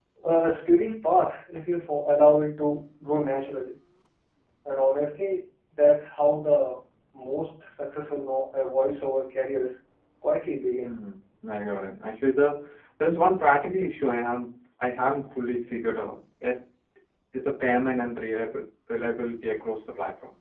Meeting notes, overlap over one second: none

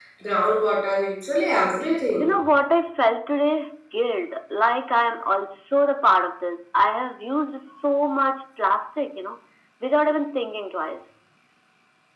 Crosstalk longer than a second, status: none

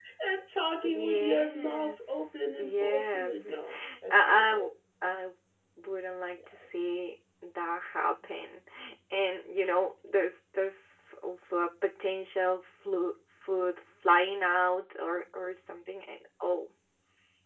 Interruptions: present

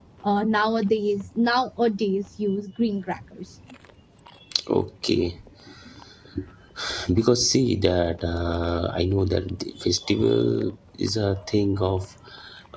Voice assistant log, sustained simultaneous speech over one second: none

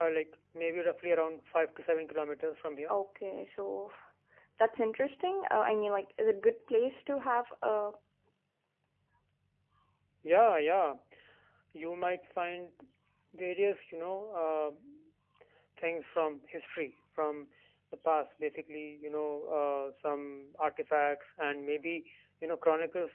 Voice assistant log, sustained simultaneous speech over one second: none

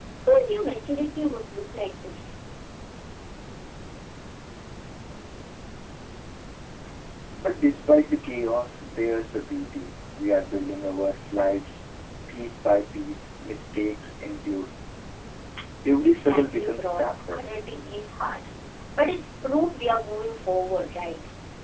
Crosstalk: present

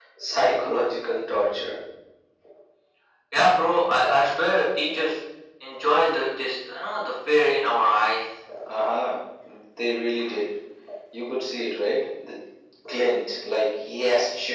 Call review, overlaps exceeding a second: none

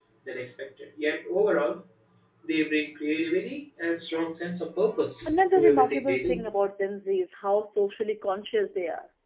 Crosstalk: present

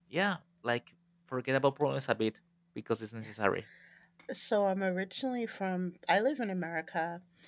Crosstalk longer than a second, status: none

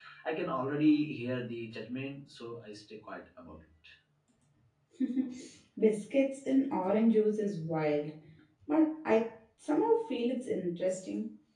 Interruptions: none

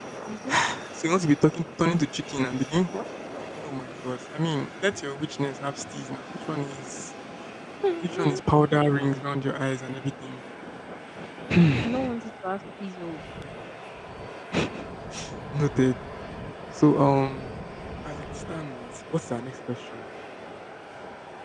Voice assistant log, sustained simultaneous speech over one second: none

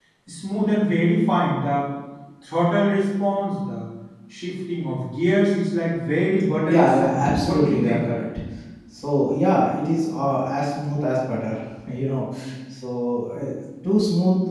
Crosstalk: present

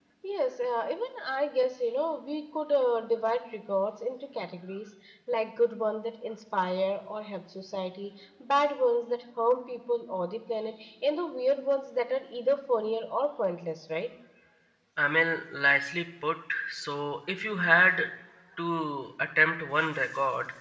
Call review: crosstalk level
none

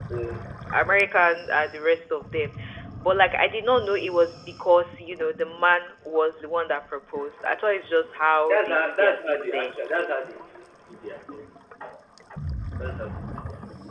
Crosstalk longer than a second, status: present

